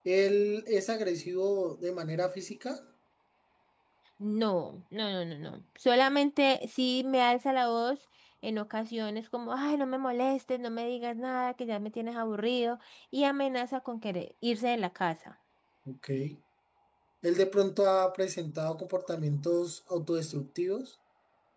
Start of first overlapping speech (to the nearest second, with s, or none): none